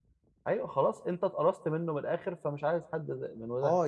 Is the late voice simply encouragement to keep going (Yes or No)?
No